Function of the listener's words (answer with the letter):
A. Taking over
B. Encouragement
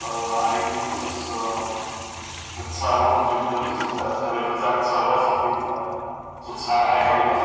A